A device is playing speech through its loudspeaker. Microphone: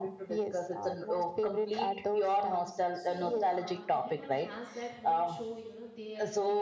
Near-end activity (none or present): present